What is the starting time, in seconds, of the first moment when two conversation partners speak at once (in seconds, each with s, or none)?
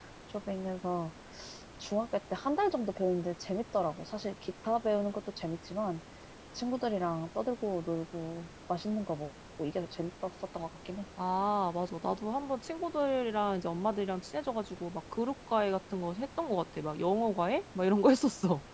none